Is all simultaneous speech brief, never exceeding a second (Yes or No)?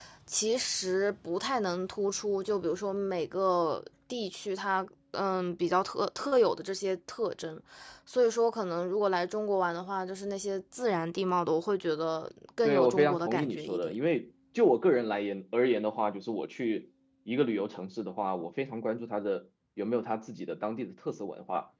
No